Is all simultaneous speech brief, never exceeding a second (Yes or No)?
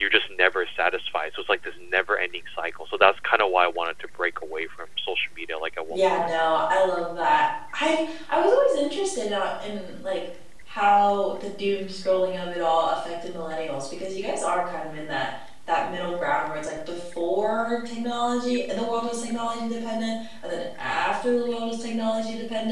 Yes